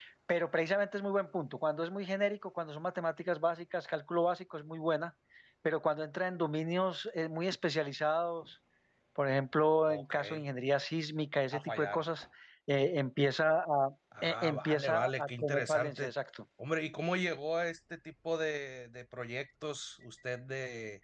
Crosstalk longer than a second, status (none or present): present